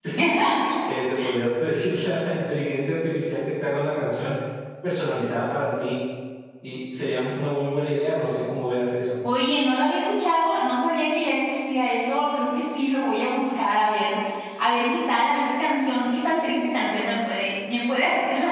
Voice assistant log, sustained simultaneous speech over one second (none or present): none